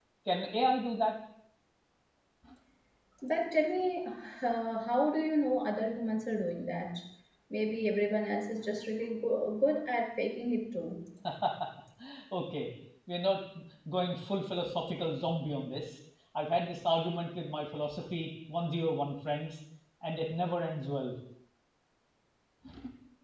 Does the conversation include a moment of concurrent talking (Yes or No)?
No